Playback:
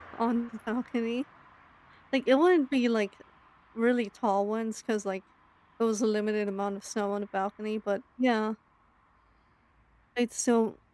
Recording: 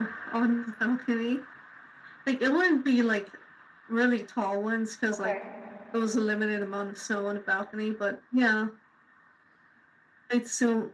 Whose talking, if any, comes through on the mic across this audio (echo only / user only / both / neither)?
both